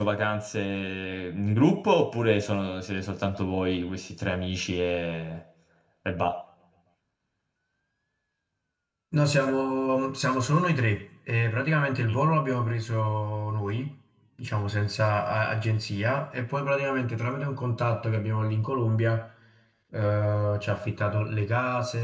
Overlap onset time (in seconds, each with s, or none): none